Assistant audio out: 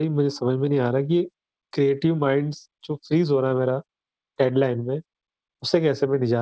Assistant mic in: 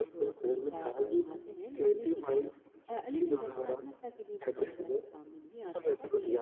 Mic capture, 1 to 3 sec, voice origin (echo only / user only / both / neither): both